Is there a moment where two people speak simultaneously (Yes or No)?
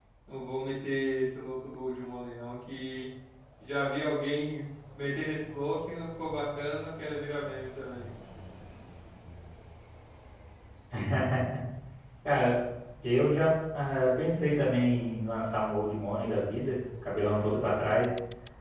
No